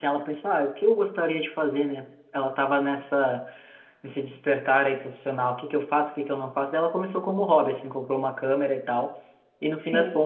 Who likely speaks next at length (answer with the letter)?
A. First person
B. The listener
A